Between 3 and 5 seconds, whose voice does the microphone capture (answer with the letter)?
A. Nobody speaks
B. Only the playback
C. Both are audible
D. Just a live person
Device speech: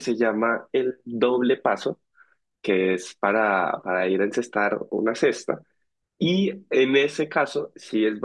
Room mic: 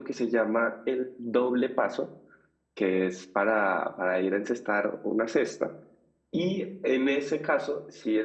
B